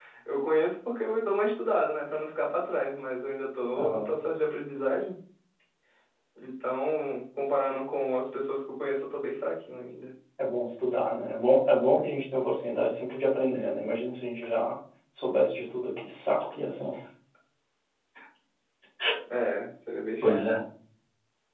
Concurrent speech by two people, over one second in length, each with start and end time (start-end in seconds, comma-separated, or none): none